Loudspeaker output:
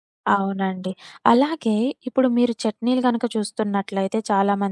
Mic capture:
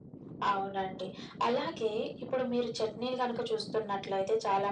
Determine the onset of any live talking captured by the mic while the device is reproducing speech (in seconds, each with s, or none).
none